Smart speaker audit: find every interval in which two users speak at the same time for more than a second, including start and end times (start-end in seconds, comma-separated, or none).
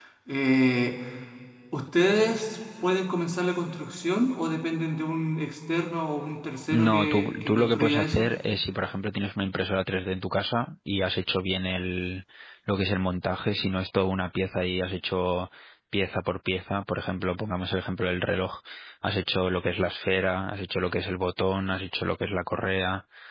6.7-8.3